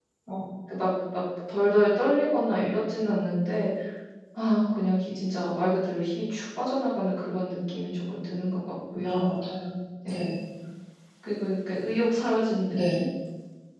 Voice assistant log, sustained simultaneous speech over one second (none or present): none